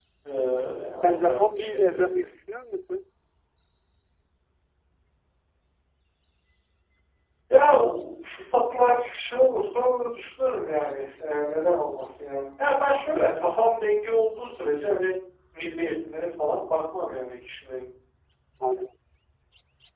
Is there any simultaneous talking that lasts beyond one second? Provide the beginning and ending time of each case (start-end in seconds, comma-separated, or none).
1.0-2.2